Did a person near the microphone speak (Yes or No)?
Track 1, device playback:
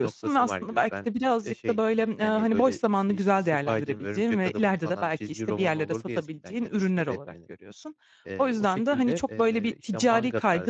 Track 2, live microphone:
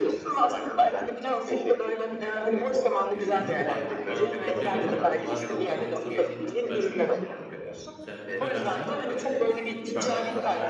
Yes